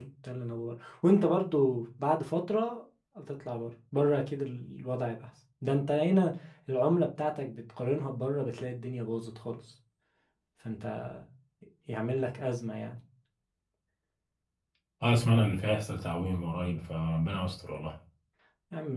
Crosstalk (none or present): none